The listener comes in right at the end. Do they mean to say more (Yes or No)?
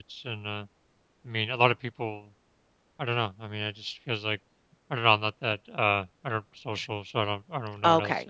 Yes